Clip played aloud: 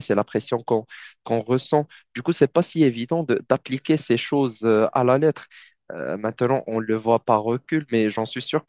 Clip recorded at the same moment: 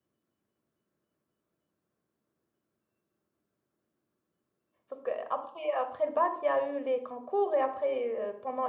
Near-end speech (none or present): present